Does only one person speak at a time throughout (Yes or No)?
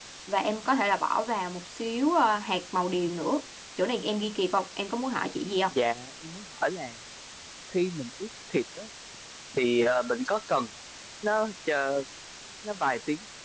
Yes